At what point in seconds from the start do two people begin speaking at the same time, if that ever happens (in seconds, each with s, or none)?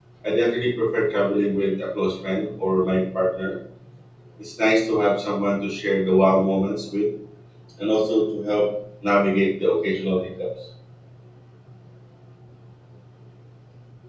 none